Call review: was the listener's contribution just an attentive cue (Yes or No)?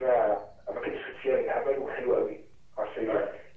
Yes